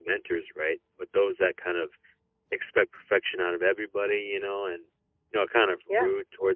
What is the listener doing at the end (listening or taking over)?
listening